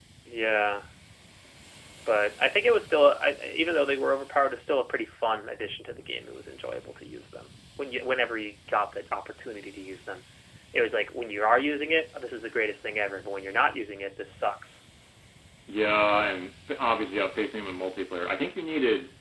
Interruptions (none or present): none